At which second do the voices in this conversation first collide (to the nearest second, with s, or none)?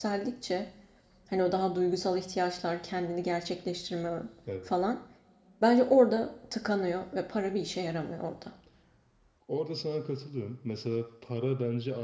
none